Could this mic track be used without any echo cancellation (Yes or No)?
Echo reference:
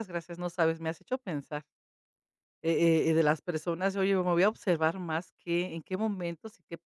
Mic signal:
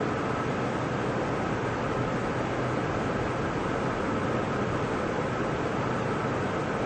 Yes